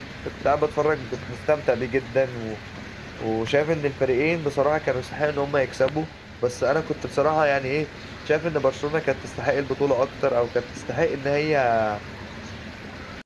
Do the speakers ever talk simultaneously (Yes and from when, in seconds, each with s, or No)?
No